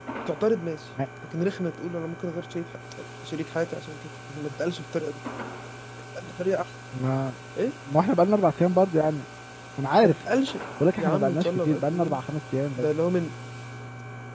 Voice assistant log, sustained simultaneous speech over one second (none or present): present